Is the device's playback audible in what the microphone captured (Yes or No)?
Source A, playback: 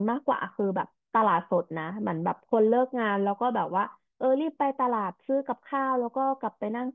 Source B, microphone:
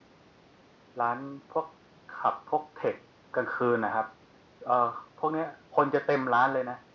No